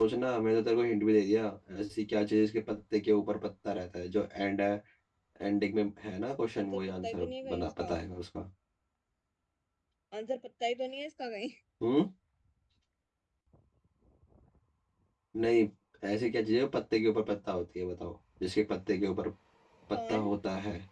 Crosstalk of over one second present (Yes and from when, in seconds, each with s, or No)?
Yes, from 6.6 s